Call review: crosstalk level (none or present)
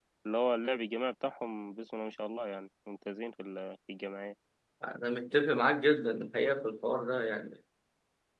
none